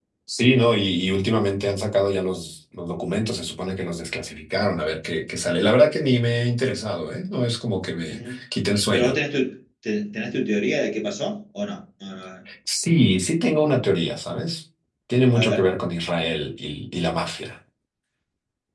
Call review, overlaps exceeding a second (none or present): none